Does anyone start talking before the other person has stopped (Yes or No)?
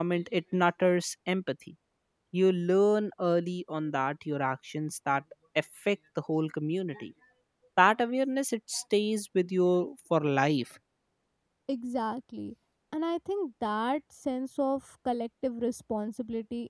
No